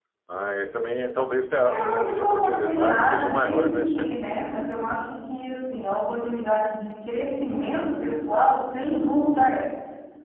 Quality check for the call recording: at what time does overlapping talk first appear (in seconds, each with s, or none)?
1.6 s